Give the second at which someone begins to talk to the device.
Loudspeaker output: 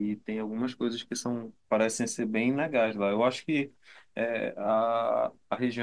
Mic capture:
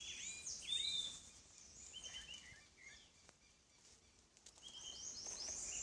none

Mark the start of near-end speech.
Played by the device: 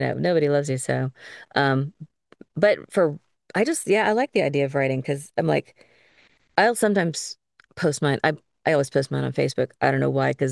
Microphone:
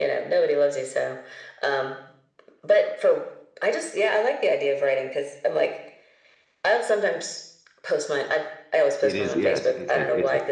9.0 s

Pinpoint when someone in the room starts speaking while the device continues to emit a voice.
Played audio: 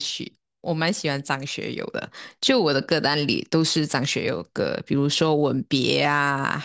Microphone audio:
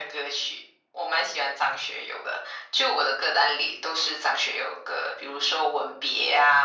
none

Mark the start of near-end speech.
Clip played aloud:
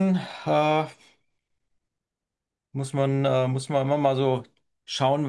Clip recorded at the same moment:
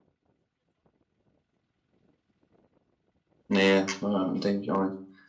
3.5 s

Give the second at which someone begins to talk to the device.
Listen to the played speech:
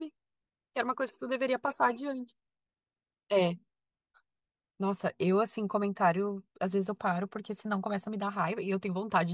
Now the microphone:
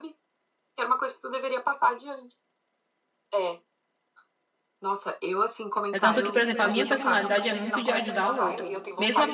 5.9 s

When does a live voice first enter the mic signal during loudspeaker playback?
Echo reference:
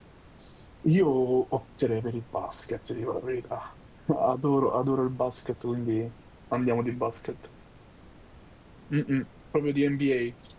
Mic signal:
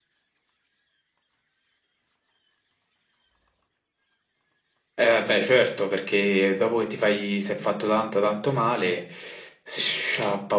4.9 s

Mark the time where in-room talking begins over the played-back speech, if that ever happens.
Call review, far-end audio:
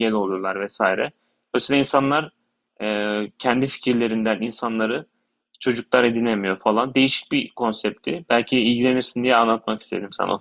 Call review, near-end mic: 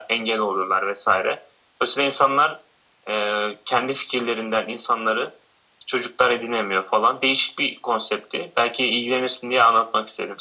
none

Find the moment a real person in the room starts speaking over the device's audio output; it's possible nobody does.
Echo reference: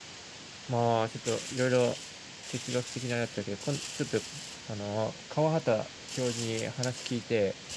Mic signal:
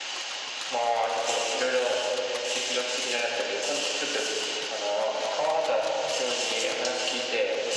none

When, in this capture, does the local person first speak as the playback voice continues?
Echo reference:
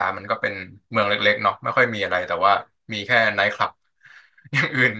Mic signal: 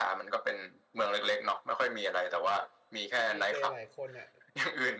3.3 s

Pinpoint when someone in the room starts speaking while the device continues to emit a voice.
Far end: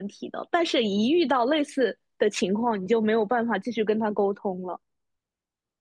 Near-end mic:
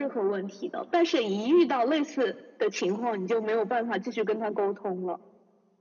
none

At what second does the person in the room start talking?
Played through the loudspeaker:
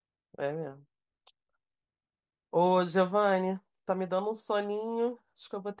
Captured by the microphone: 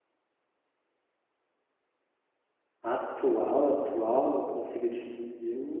2.8 s

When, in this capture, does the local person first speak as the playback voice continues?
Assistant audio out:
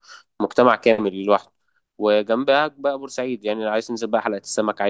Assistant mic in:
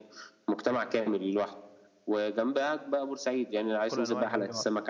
3.9 s

